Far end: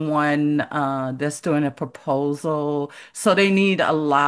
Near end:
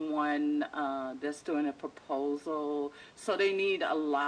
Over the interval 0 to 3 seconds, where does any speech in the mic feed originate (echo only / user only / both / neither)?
echo only